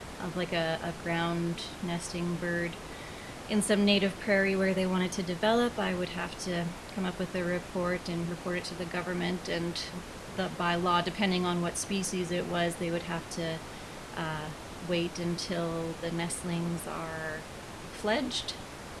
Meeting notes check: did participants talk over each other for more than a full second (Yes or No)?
No